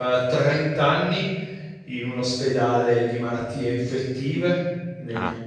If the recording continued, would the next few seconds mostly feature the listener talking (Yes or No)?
No